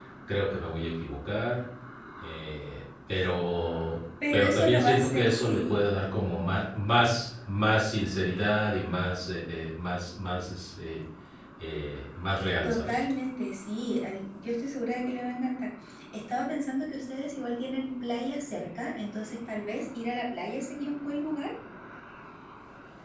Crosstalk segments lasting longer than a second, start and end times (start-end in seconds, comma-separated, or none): 4.3-5.8